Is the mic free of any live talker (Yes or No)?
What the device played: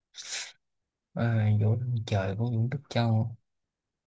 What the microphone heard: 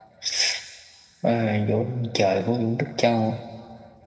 Yes